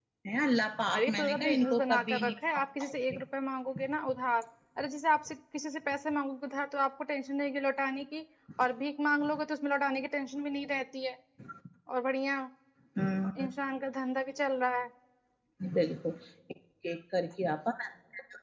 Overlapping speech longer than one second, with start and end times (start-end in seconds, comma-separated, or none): 1.0-2.6